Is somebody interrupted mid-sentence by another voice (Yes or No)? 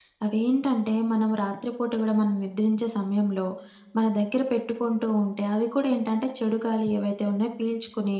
No